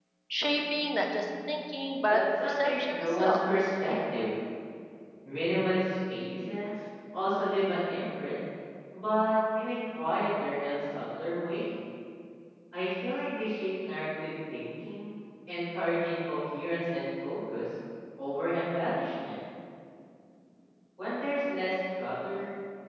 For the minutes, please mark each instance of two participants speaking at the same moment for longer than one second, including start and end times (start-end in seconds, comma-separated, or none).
2.1-3.4